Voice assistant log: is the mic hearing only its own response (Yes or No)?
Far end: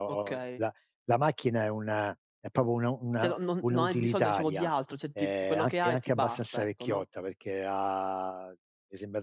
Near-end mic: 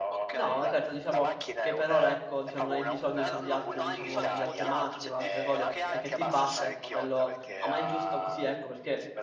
No